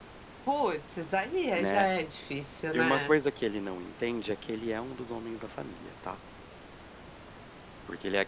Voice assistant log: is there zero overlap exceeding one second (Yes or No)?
Yes